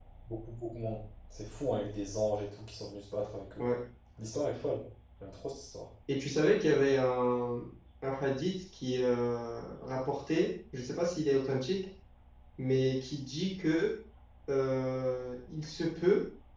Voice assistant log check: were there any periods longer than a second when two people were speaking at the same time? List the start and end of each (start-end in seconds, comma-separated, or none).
none